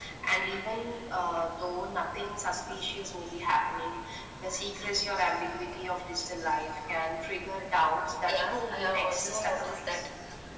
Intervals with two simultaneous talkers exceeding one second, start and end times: 8.2-10.0

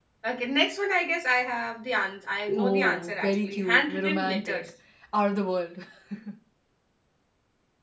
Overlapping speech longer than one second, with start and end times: 2.5-4.6

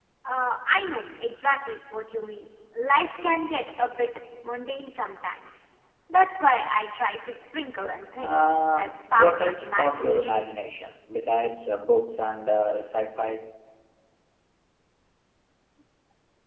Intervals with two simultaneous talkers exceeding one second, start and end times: 8.2-10.5

